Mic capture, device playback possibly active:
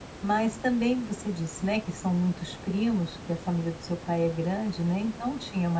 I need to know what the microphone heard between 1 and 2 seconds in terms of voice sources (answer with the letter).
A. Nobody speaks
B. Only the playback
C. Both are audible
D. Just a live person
D